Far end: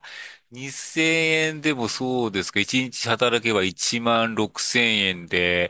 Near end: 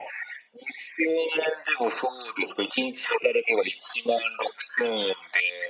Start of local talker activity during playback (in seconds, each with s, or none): none